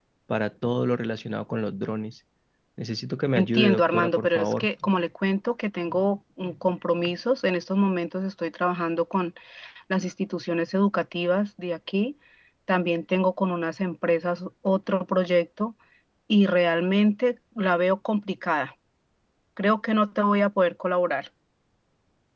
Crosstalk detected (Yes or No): Yes